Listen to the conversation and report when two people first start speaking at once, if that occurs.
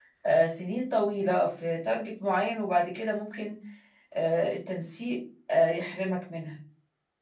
none

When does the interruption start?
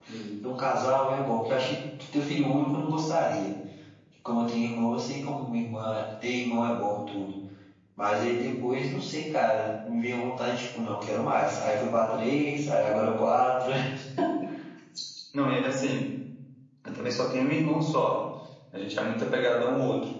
none

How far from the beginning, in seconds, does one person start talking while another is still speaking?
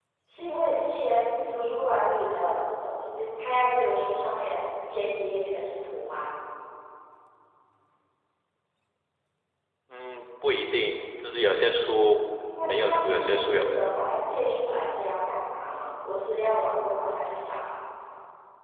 12.6 s

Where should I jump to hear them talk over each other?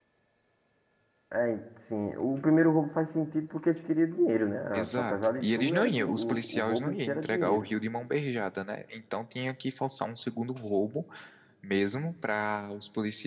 4.7 s

